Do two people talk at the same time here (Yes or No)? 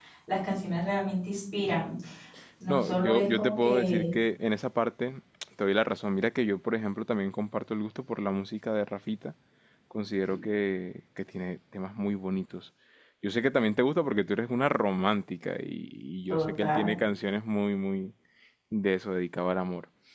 Yes